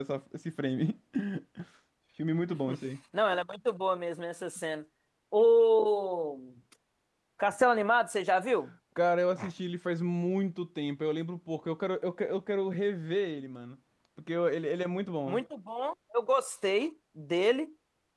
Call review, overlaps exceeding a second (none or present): none